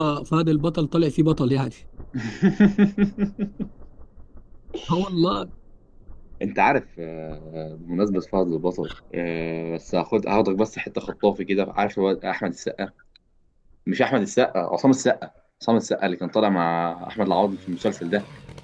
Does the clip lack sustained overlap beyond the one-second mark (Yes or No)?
Yes